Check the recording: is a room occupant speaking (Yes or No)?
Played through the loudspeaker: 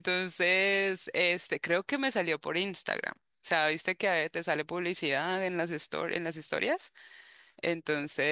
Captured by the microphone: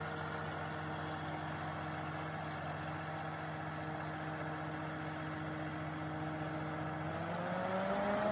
No